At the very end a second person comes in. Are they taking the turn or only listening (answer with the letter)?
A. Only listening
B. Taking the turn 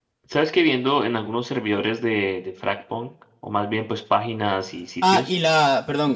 B